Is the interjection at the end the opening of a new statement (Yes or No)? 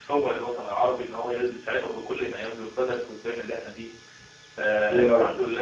No